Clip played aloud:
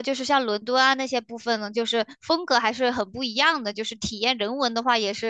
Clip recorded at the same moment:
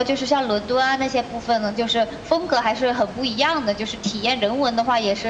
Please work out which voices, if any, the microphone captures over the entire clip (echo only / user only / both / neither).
echo only